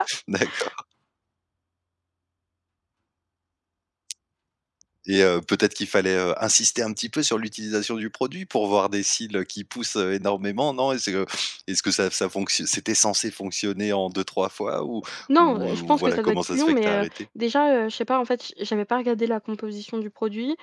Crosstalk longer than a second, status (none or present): present